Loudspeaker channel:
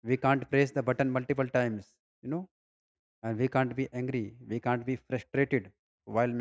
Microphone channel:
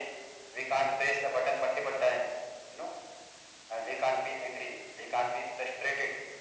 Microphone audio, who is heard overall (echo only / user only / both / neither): echo only